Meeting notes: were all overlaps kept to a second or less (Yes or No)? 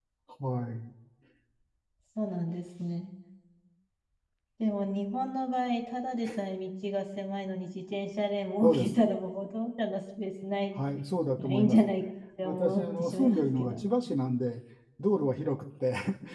No